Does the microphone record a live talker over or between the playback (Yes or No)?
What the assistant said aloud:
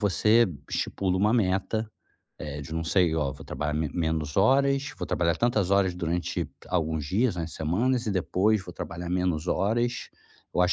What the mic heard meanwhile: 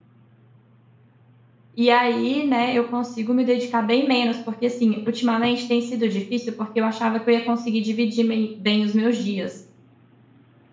Yes